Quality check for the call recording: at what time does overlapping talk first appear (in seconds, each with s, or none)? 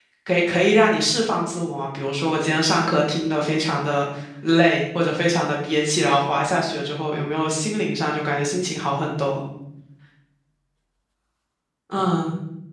none